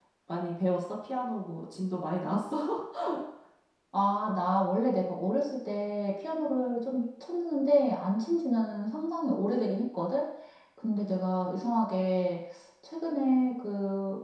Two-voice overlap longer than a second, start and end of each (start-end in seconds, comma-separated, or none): none